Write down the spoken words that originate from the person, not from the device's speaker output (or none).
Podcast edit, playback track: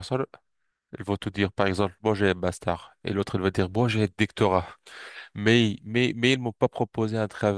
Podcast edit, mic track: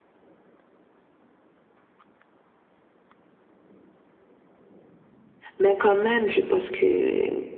Mais quand même, je pense que euh,